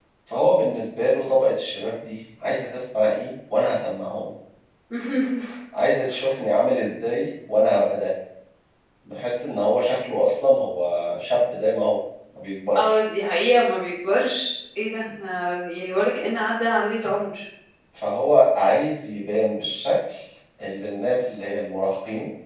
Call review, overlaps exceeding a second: none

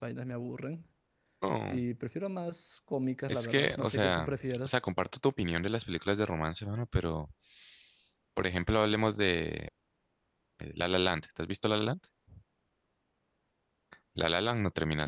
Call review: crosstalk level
present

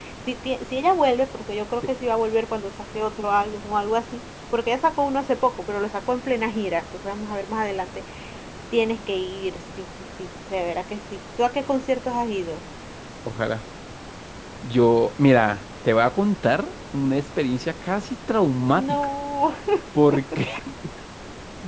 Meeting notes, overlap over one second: none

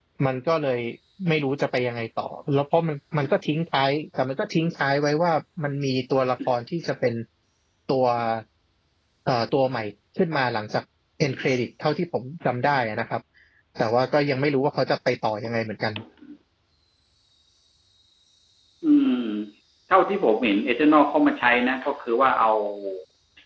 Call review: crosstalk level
none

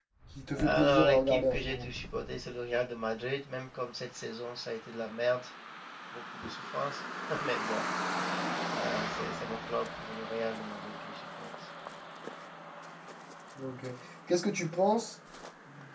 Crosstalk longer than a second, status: present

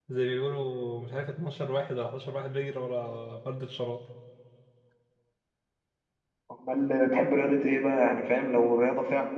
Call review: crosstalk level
none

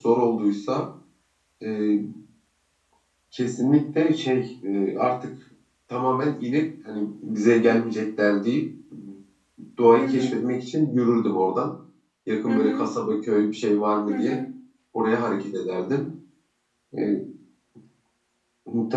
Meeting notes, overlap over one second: none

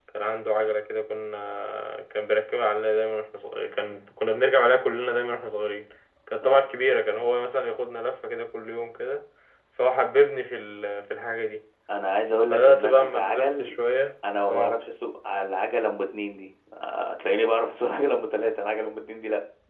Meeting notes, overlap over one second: present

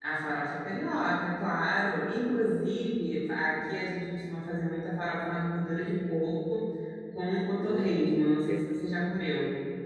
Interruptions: present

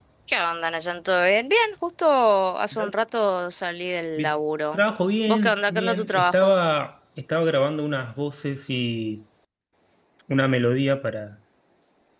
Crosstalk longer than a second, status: present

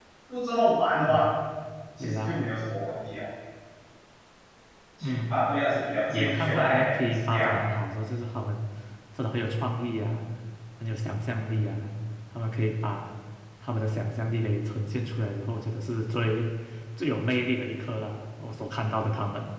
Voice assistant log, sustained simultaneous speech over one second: present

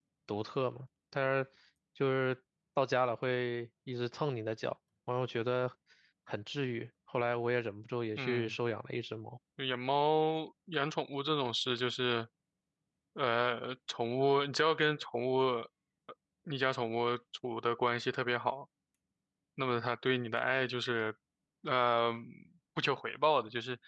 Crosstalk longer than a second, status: none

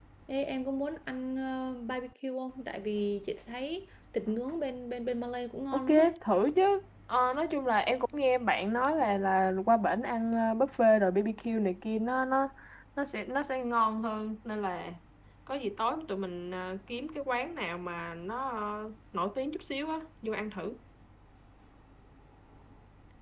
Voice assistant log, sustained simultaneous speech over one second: none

